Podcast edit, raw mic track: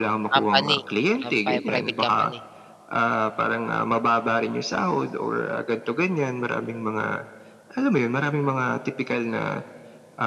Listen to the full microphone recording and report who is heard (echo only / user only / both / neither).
both